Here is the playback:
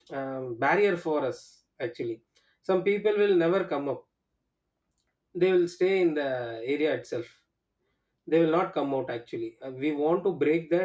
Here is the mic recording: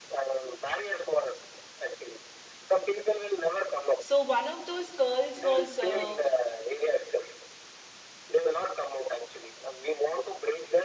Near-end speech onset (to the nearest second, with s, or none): 4 s